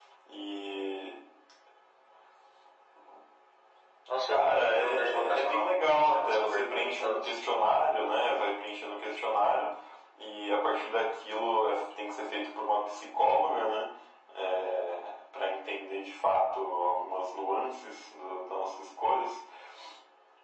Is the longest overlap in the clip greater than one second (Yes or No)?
Yes